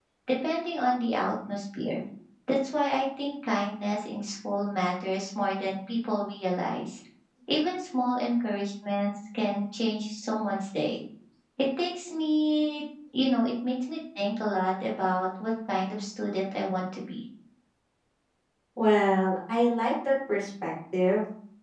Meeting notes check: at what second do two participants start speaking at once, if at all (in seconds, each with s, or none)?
none